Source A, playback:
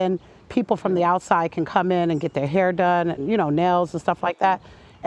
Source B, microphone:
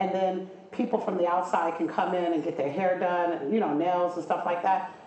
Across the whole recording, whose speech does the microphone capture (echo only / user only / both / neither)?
echo only